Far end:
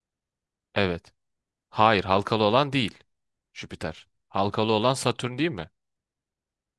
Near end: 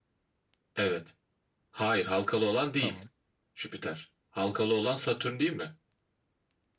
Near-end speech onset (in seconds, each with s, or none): 2.8 s